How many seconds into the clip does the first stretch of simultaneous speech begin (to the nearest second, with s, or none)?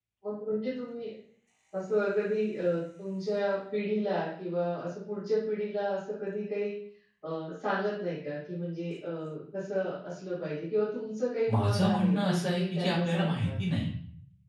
11 s